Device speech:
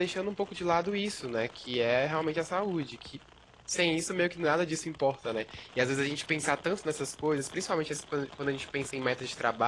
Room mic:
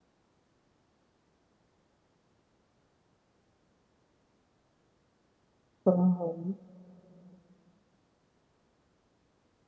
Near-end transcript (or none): Aham.